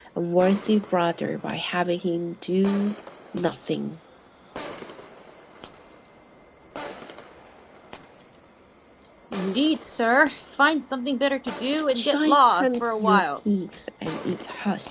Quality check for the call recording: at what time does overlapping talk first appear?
12 s

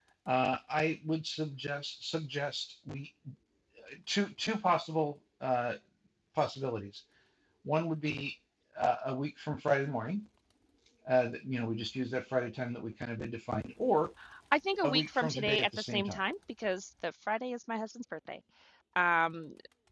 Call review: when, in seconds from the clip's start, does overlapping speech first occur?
15 s

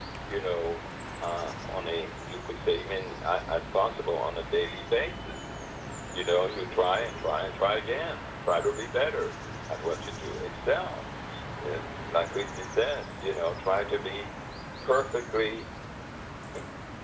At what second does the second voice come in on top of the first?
none

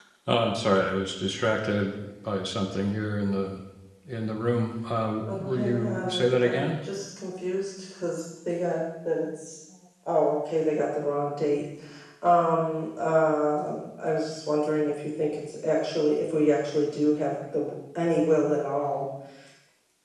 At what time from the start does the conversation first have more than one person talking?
5 s

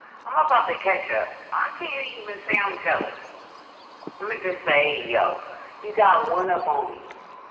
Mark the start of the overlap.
none

